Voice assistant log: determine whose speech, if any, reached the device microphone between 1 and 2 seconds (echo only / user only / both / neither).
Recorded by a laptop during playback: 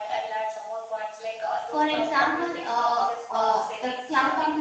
both